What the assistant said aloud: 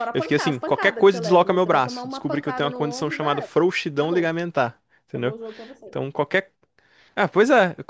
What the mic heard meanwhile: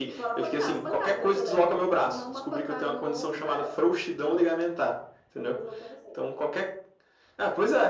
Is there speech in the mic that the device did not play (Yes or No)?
No